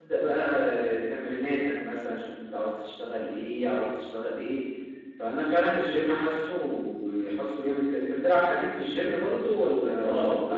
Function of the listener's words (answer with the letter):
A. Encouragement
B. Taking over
B